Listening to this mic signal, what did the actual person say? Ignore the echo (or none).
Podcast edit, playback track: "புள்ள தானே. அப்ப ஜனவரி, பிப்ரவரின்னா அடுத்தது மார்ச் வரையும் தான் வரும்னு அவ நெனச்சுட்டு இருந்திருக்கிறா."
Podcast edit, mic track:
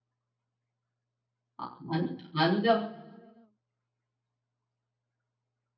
அ அந் அந்த